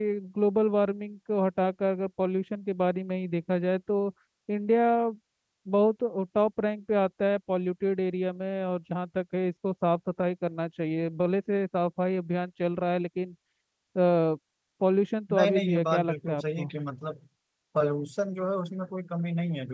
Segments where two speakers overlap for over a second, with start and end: 15.3-16.7

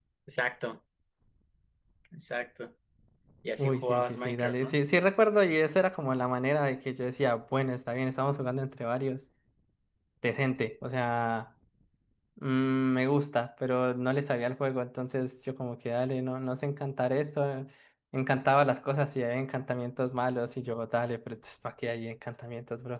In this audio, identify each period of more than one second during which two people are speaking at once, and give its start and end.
3.6-4.8

